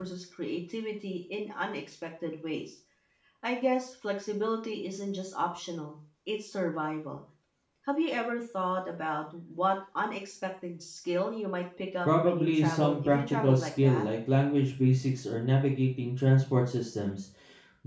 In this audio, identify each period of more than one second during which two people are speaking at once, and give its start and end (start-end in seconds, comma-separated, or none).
12.0-14.0